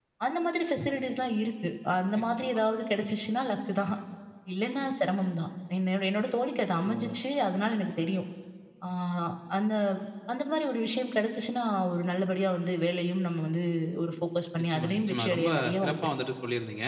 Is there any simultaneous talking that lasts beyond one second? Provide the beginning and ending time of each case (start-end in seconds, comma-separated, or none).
14.6-16.0